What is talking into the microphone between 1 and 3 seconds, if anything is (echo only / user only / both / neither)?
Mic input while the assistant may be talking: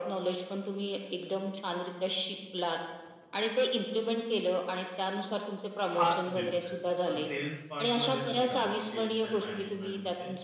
echo only